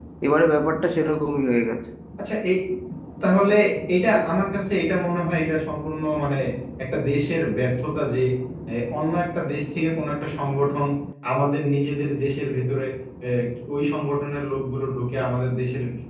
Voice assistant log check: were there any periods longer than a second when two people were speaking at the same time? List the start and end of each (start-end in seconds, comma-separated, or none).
none